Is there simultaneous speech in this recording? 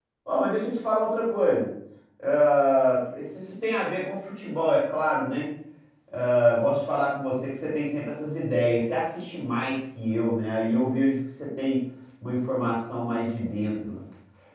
No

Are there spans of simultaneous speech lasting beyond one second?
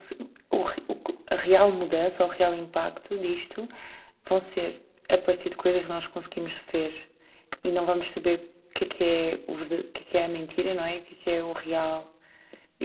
No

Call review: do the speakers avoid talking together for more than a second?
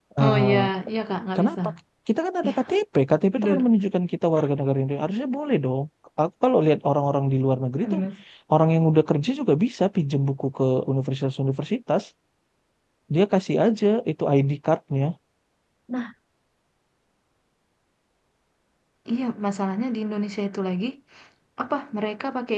Yes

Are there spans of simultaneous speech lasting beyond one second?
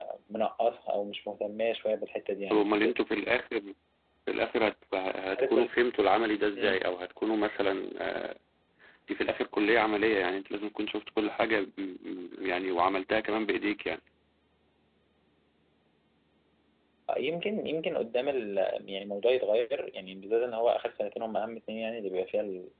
No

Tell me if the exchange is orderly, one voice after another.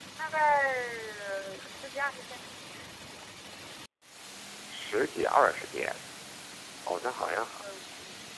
Yes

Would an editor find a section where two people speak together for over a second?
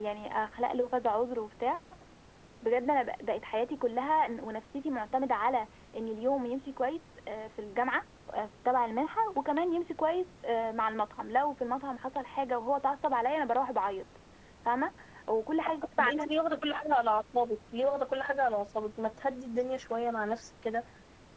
No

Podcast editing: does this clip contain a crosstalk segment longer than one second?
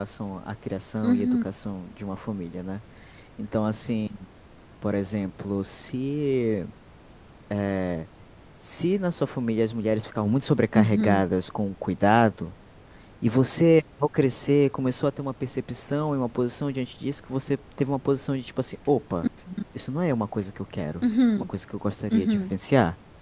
No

